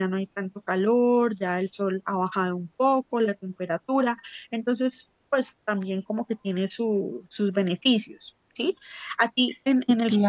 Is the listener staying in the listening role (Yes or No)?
Yes